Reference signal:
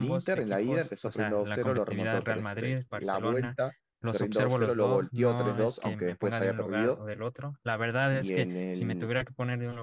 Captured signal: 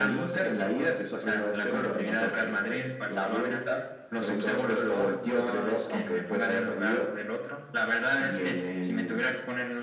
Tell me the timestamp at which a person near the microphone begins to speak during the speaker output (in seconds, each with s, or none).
none